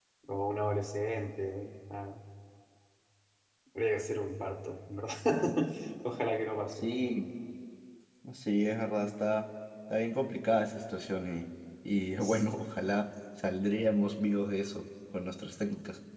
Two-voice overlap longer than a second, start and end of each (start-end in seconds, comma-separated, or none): none